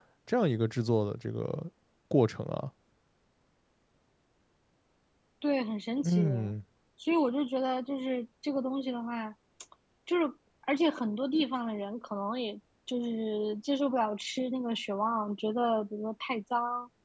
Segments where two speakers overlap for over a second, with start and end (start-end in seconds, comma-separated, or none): none